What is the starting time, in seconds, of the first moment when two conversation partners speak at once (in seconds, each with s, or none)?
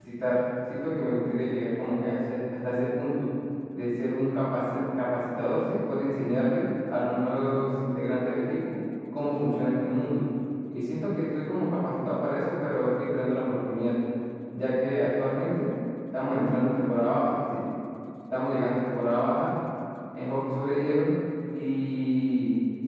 none